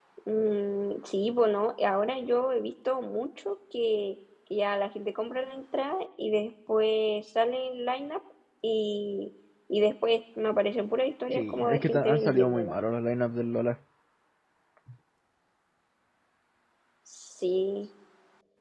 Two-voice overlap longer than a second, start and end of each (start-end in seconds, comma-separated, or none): 11.3-12.8